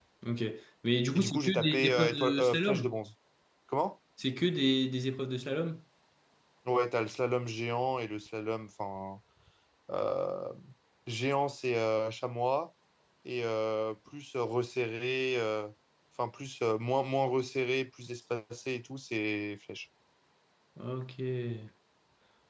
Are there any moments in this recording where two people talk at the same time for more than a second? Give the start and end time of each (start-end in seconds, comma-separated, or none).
1.1-2.9